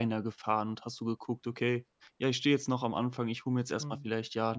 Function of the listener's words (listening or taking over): listening